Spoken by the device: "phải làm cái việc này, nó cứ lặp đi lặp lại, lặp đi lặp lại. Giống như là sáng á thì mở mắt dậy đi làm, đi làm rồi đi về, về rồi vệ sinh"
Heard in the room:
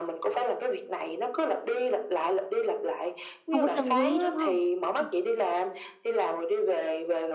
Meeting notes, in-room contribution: present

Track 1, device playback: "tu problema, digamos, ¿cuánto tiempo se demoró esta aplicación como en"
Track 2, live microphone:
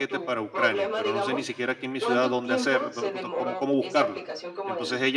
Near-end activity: present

